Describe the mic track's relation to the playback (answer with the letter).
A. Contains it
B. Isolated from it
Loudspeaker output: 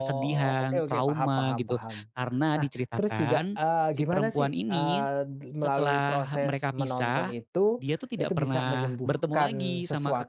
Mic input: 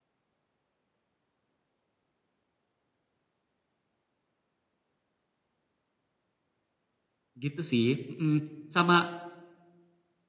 B